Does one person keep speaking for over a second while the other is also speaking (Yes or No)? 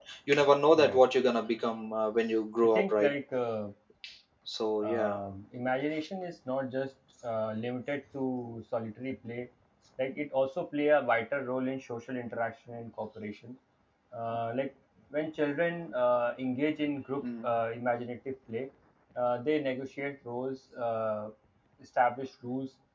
No